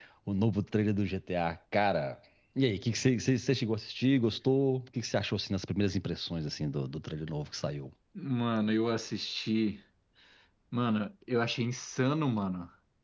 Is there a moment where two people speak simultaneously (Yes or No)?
No